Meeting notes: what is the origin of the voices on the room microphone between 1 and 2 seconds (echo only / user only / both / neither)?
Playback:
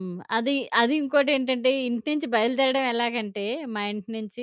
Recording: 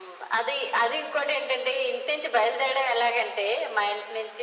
echo only